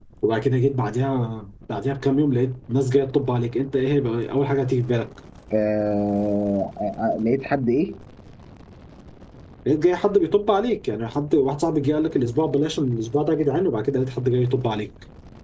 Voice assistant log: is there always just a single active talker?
Yes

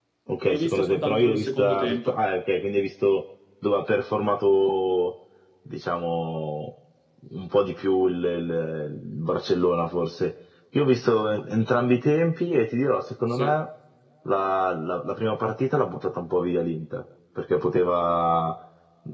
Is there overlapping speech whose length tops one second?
Yes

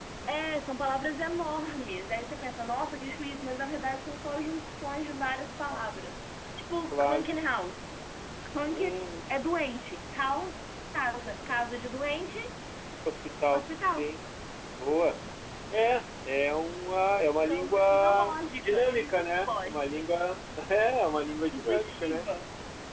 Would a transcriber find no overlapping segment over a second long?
No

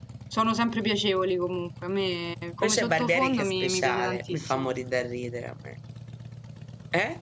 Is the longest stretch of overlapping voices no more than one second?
No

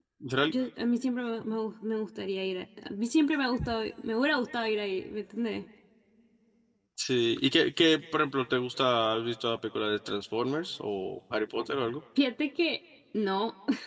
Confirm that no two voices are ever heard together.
Yes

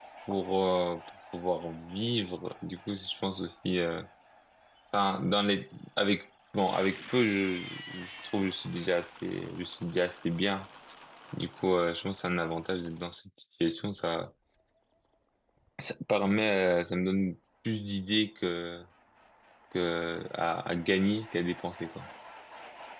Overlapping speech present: No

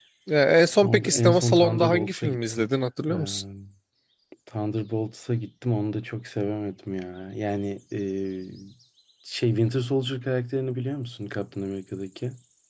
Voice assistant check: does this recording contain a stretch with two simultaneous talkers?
Yes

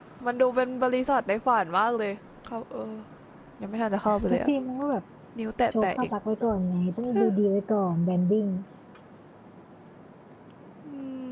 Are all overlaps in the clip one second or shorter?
Yes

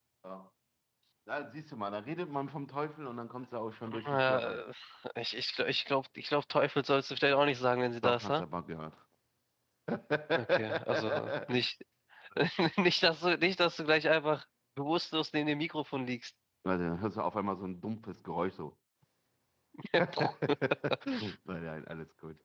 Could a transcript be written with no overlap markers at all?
No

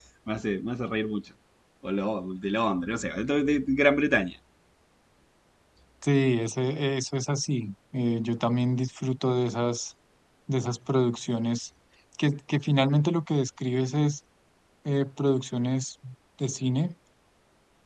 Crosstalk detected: No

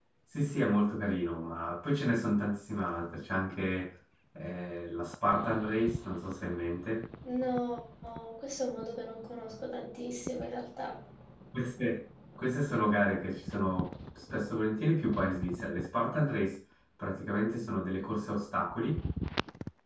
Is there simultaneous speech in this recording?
No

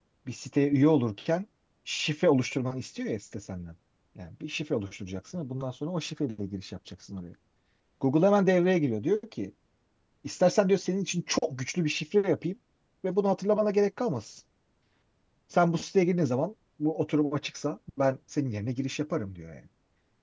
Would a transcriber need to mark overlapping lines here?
No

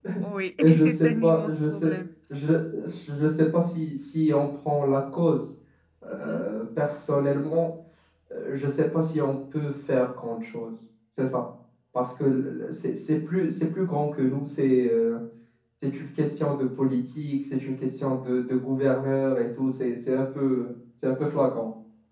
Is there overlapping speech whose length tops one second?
Yes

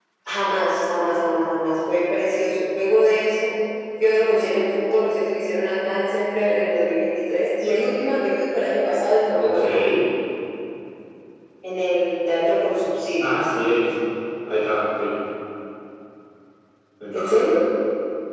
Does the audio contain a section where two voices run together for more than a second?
No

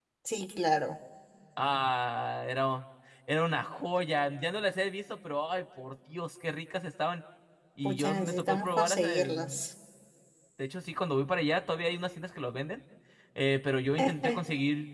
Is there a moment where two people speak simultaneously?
Yes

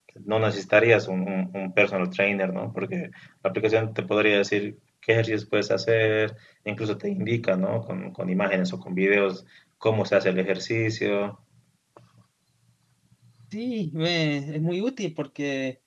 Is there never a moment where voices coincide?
Yes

